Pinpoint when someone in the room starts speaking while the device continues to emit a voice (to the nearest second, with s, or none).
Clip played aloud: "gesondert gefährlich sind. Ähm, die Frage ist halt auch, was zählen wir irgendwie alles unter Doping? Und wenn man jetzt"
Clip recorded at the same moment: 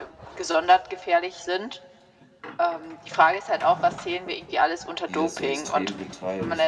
5 s